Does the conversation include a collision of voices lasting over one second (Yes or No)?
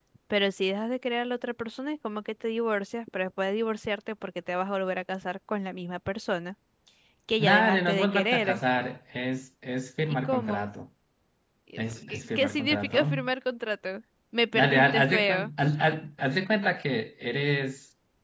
Yes